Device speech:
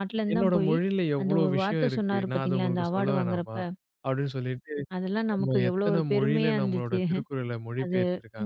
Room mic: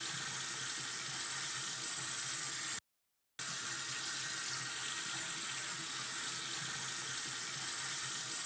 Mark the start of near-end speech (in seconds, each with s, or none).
none